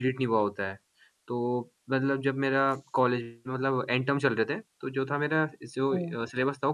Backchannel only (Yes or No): Yes